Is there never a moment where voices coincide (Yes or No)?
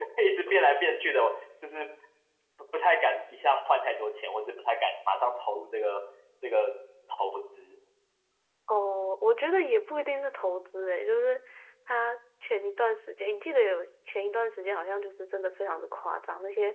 Yes